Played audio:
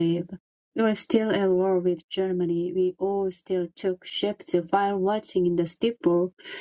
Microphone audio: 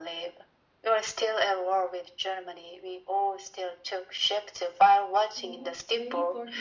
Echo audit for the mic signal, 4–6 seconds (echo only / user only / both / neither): both